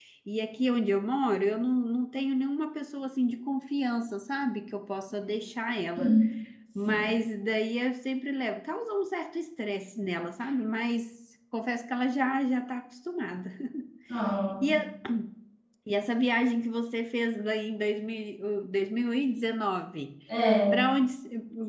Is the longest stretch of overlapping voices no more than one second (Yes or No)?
Yes